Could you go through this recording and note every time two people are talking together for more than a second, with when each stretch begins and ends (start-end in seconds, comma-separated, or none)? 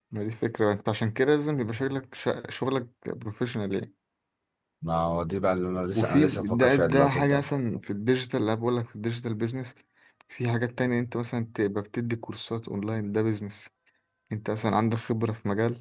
5.9-7.5